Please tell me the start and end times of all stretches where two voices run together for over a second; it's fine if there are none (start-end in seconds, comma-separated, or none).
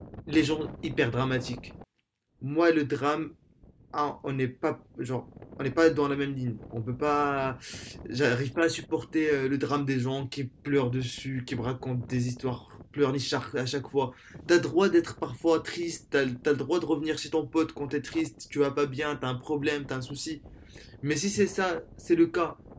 none